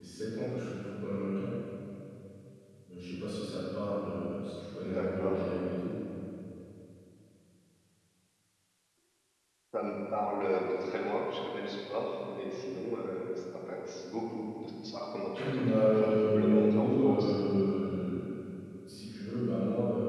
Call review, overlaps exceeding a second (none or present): present